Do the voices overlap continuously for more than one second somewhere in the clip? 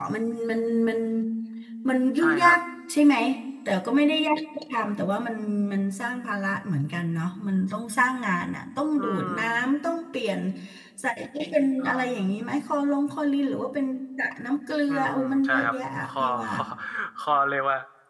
Yes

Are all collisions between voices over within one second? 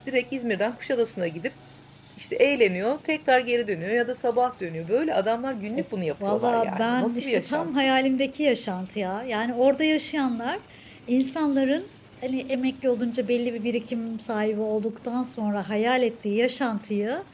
No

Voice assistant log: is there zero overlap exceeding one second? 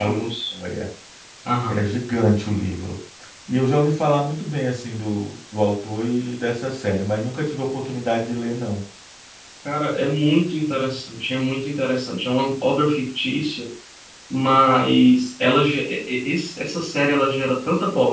Yes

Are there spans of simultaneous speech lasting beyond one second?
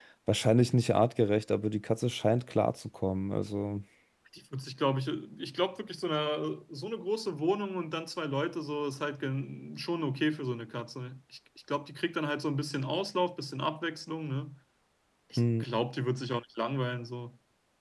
No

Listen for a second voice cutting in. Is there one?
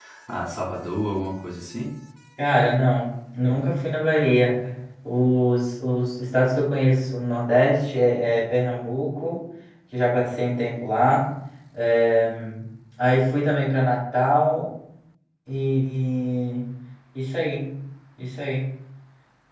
No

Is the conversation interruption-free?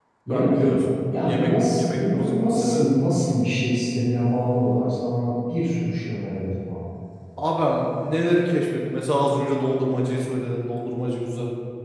No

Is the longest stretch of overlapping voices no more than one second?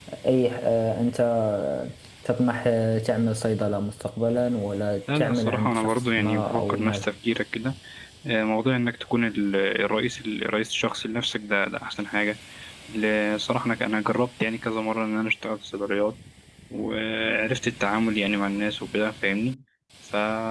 No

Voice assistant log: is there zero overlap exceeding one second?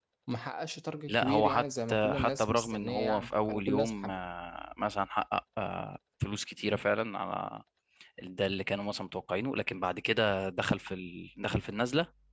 No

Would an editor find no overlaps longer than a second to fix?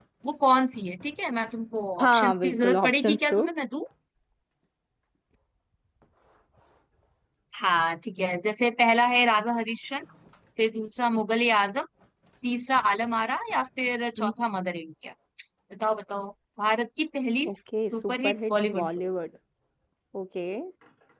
No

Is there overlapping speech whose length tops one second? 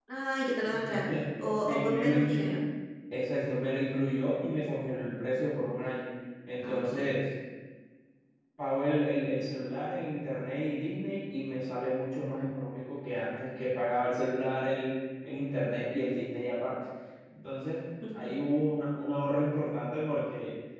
Yes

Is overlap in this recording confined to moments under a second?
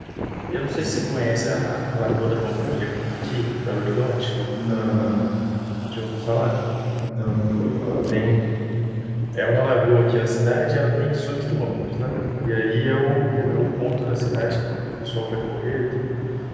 No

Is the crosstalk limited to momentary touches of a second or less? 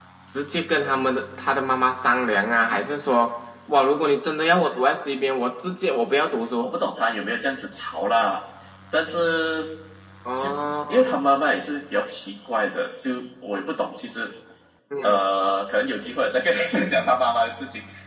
Yes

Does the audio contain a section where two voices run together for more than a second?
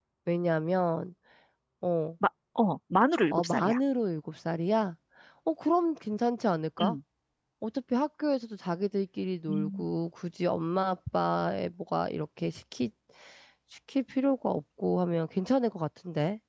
No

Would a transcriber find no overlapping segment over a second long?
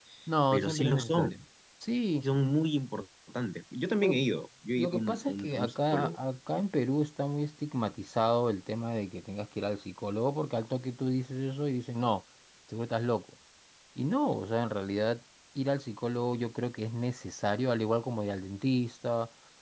No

